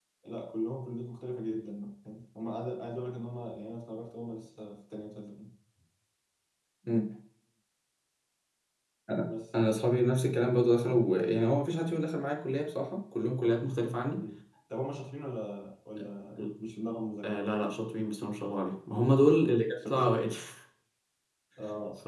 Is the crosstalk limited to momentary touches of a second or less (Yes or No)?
Yes